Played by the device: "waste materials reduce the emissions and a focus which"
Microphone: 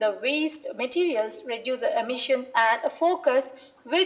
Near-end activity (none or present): none